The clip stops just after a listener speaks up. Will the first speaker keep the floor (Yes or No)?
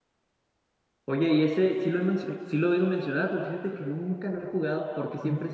Yes